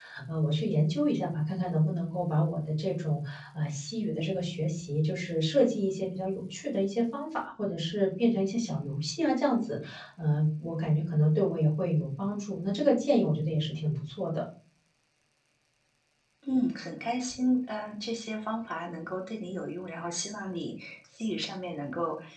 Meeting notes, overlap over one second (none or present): none